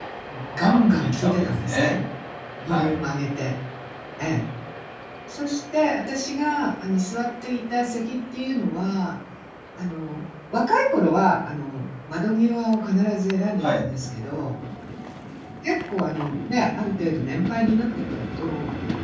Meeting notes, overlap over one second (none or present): present